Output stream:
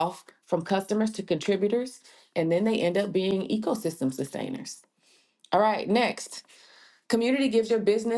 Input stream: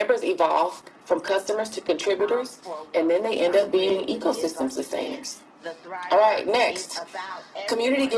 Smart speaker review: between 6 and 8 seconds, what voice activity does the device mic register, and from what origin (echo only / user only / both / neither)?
both